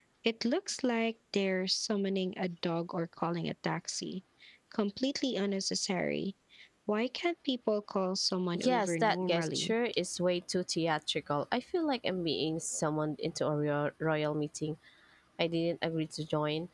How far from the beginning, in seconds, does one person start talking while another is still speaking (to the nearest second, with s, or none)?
9 s